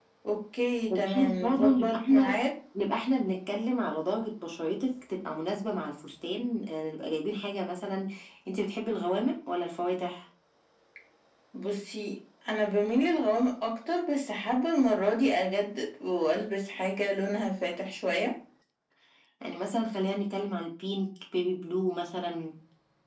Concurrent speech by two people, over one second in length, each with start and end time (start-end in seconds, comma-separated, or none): 0.9-2.4